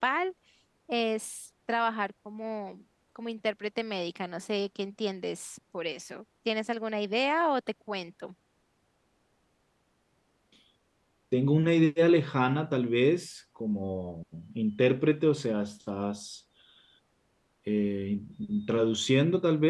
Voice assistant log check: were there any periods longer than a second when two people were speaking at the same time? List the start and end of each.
none

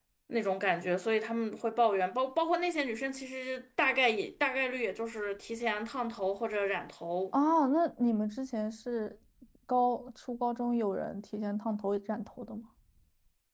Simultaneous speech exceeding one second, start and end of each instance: none

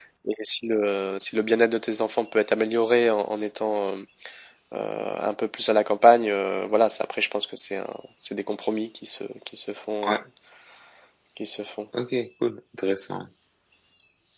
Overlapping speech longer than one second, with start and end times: none

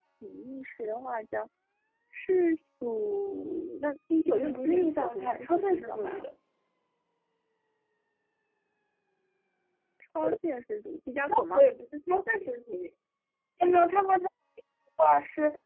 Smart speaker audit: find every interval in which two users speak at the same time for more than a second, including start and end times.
4.2-6.3

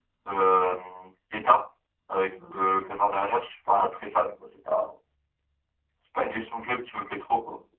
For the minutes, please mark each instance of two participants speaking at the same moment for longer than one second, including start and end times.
none

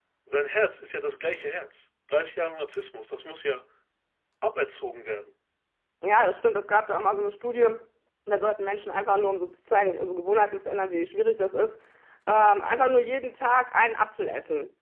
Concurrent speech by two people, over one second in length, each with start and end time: none

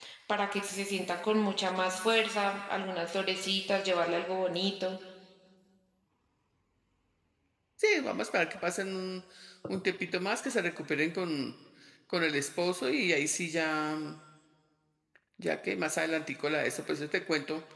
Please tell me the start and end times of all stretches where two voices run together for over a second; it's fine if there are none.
none

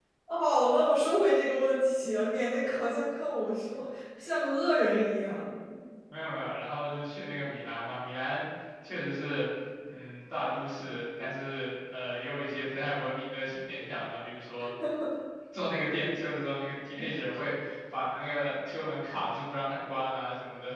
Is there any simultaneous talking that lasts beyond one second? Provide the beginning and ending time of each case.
none

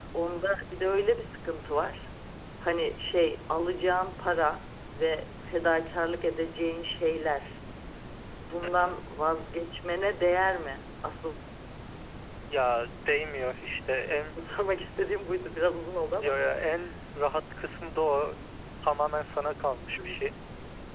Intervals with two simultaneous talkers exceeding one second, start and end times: none

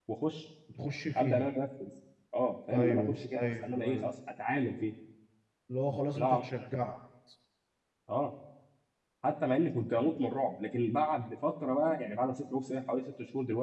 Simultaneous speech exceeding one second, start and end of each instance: 2.7-4.1

